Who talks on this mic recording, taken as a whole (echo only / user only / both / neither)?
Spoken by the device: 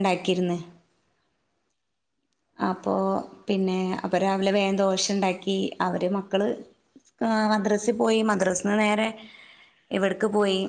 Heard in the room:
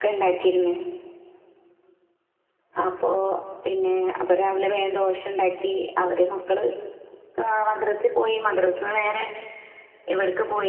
echo only